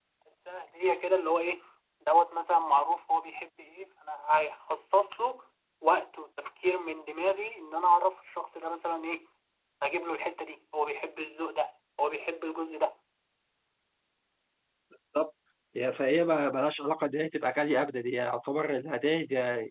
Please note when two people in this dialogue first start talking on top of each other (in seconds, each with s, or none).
none